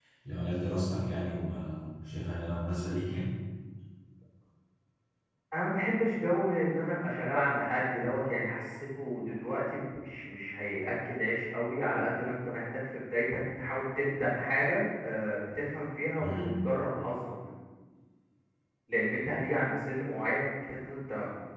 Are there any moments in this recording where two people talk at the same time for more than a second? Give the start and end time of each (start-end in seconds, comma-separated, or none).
none